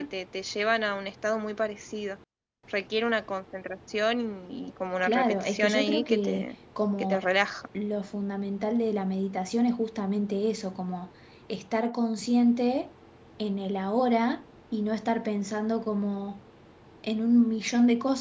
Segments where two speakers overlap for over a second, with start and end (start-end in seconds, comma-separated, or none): 5.0-6.5